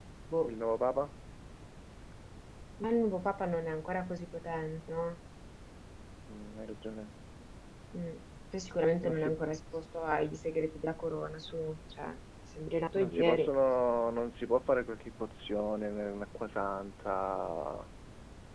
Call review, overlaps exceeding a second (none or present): none